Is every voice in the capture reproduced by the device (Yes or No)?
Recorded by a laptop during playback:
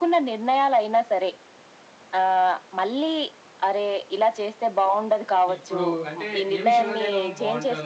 No